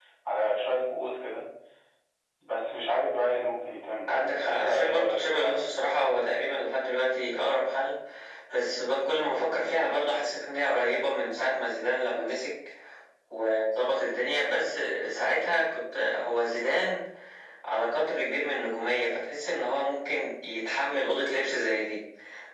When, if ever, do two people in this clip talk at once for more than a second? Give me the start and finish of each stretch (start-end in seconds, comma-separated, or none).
4.4-5.7